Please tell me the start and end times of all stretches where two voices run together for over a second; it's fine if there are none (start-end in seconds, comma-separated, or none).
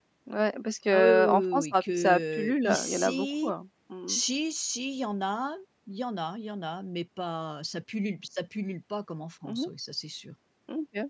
0.9-3.5